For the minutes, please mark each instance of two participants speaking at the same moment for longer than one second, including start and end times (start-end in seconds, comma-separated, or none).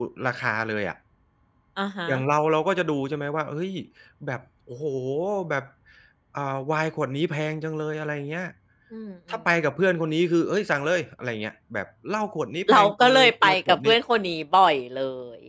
12.7-13.9